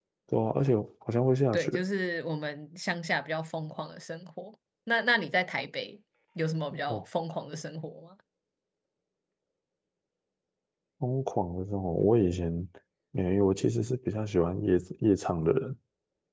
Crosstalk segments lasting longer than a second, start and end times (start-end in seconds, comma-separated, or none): none